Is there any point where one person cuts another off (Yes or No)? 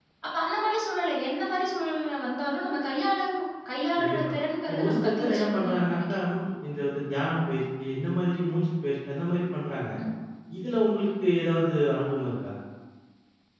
Yes